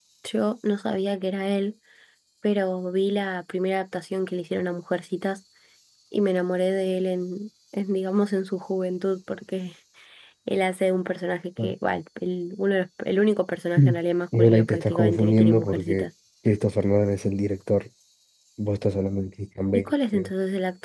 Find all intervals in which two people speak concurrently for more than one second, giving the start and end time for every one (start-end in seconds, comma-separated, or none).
14.3-16.1